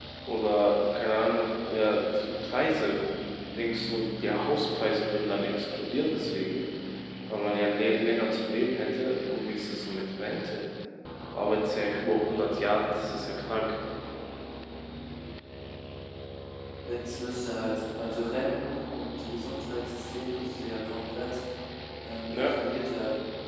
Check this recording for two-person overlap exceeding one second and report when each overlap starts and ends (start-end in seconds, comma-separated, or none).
none